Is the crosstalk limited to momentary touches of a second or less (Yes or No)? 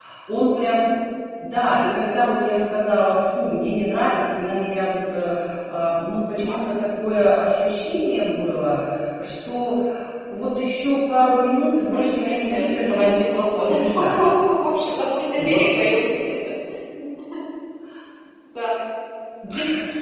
No